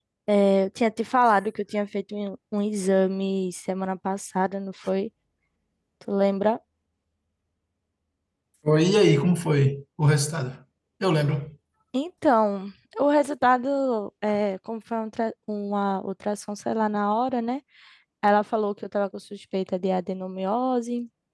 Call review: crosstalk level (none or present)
none